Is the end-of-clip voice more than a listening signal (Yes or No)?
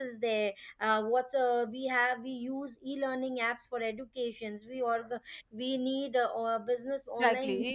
Yes